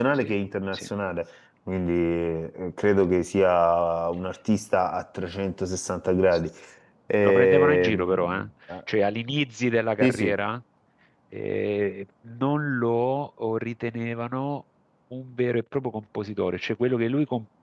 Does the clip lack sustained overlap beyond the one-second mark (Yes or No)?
No